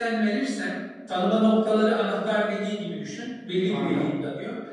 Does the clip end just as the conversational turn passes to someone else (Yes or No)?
No